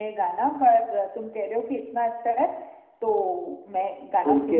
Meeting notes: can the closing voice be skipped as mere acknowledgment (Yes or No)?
No